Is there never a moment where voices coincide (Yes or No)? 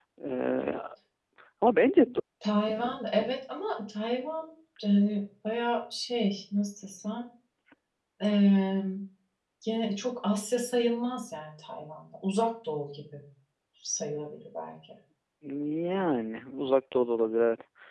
Yes